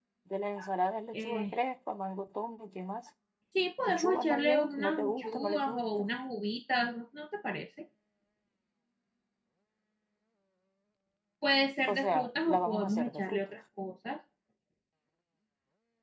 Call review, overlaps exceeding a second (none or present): present